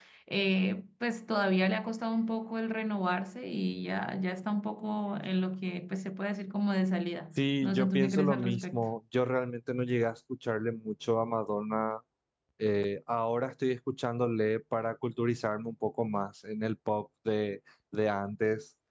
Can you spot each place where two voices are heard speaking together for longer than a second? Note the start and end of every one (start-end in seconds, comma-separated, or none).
7.4-8.9